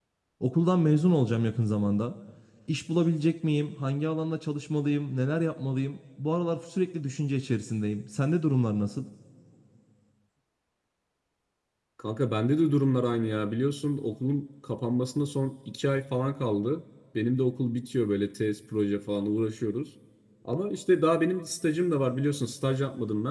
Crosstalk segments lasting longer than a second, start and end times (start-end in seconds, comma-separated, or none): none